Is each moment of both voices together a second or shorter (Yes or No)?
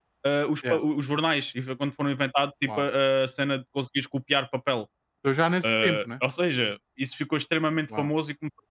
Yes